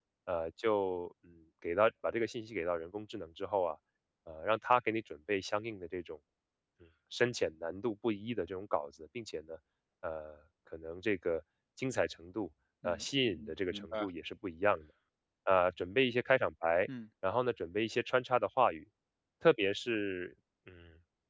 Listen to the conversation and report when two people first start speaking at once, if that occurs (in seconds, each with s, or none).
12.8 s